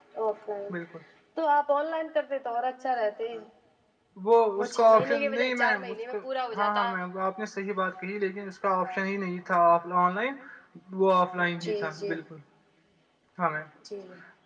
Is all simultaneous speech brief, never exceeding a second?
No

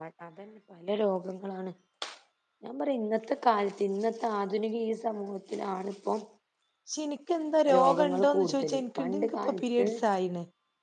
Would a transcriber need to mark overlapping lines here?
Yes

